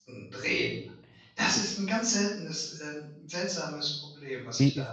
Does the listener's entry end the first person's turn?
Yes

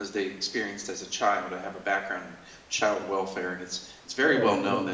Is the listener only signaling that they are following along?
Yes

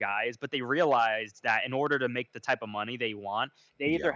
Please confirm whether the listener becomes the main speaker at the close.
No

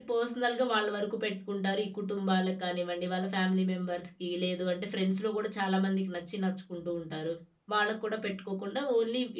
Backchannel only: Yes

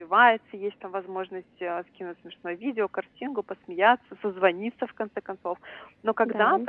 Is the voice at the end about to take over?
No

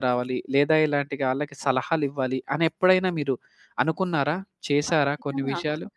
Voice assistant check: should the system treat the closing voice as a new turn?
Yes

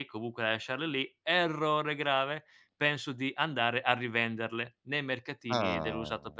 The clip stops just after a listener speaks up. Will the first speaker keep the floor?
Yes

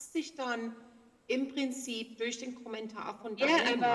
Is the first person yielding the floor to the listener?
Yes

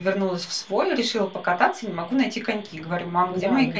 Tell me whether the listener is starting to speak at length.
No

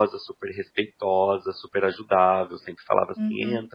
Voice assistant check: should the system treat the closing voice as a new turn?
No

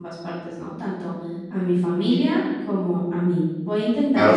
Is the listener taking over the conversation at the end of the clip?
Yes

